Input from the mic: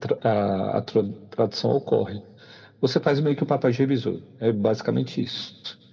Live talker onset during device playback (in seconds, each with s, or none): none